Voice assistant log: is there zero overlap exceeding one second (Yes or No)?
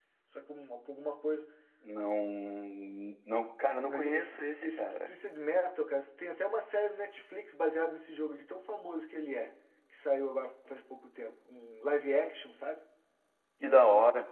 No